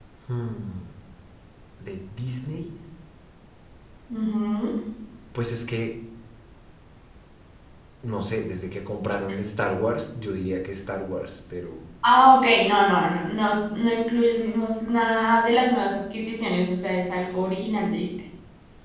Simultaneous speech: No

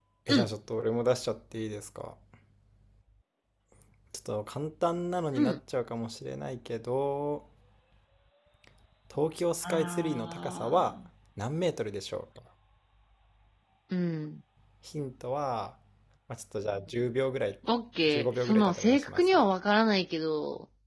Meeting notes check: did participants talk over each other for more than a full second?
Yes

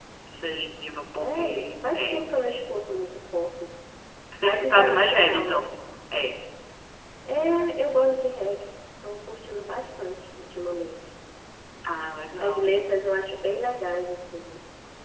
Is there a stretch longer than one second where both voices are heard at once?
Yes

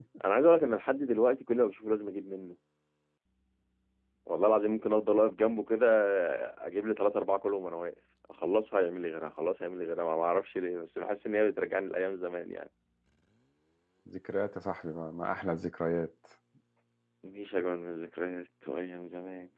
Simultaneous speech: No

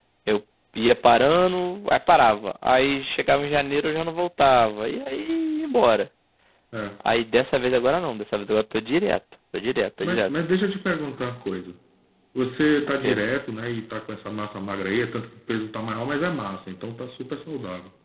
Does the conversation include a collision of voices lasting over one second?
No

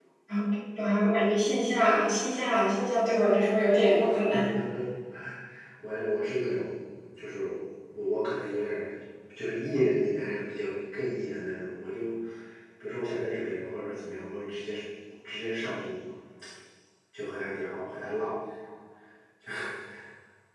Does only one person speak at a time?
Yes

